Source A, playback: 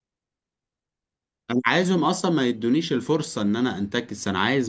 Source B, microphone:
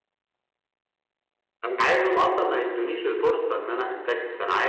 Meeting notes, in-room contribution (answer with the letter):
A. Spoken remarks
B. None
B